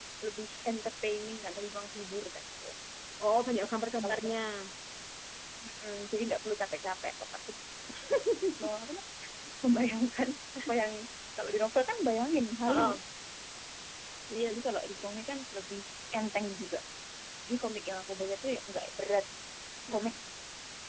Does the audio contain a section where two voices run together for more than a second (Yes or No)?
No